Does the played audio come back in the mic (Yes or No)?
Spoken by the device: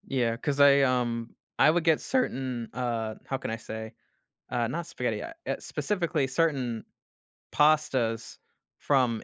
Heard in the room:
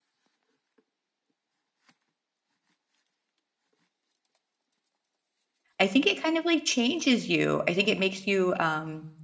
No